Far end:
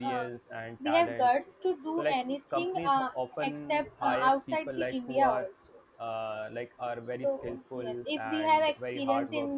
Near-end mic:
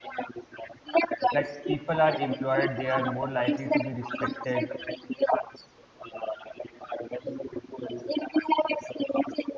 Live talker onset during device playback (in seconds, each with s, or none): 1.3 s